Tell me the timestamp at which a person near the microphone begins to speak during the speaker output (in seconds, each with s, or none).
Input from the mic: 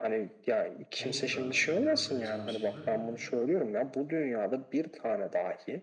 1.0 s